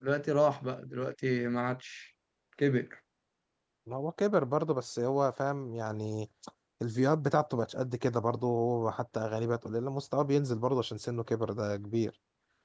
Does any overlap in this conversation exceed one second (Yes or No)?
No